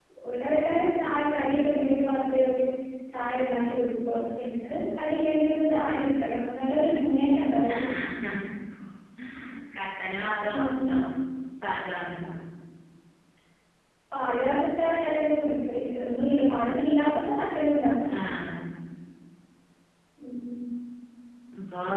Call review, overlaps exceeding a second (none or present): none